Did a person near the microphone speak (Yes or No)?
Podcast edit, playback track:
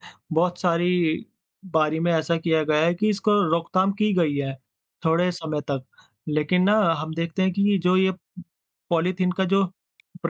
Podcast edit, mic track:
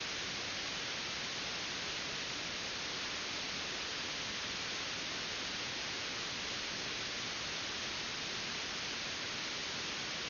No